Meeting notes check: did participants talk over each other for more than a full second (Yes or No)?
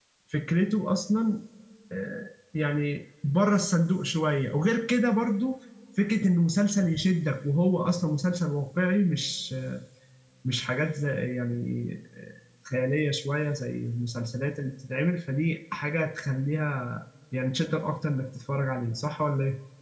No